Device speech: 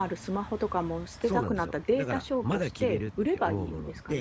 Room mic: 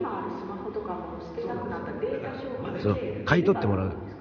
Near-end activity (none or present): present